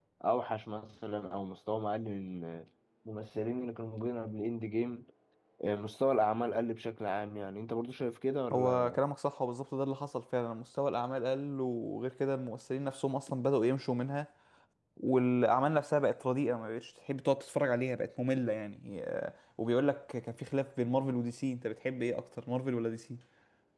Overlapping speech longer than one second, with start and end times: none

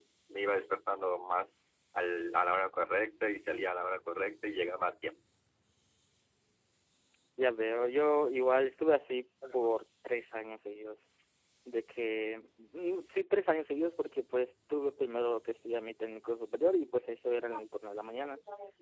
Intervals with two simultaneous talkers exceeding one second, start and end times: none

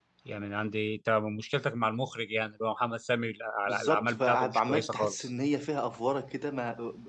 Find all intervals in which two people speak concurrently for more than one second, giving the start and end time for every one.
3.7-5.3

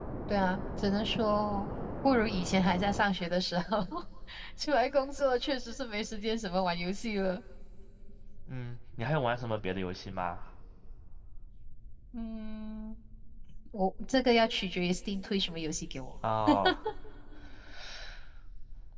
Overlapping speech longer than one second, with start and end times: none

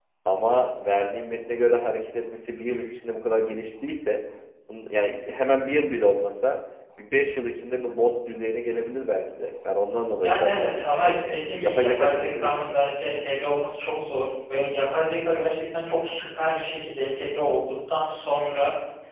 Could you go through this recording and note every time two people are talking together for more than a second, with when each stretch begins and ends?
10.2-13.2

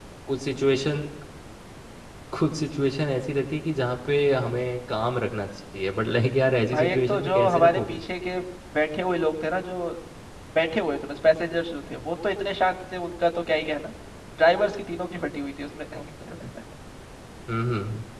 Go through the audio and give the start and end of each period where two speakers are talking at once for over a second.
6.7-8.0

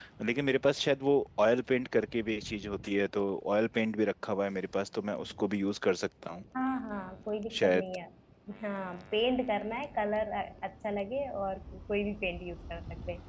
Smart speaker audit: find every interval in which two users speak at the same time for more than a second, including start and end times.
none

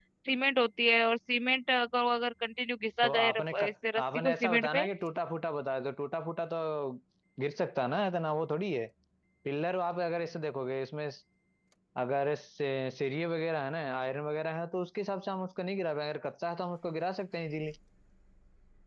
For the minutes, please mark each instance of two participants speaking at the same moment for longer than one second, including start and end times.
3.0-4.9

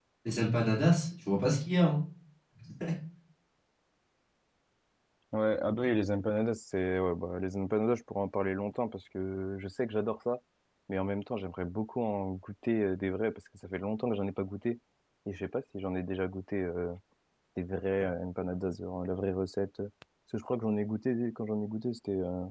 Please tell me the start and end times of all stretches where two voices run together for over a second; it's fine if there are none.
none

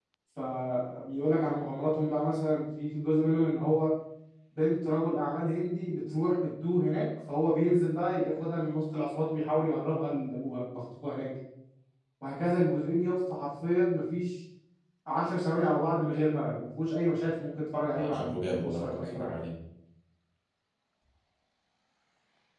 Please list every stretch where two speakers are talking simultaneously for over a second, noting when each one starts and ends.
17.9-19.3

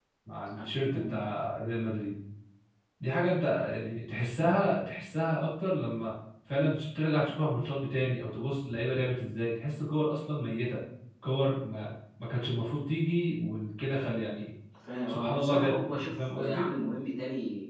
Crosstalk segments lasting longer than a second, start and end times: 15.1-16.7

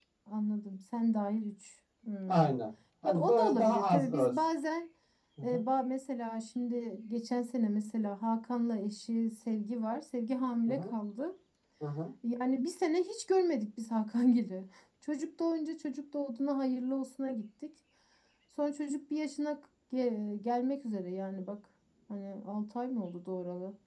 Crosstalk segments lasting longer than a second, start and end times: 3.0-4.4

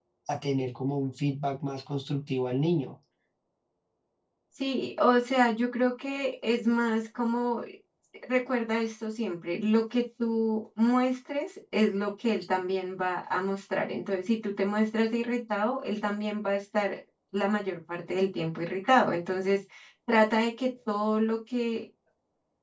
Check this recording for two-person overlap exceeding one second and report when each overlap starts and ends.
none

